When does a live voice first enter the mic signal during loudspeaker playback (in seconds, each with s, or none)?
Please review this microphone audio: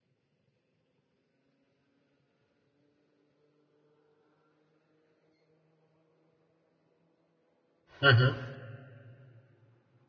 8.0 s